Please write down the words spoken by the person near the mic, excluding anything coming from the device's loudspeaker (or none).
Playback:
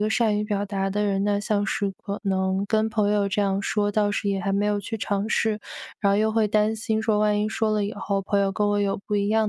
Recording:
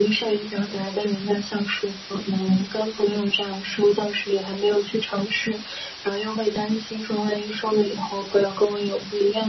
none